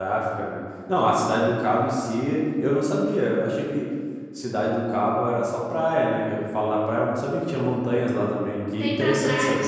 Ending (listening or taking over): taking over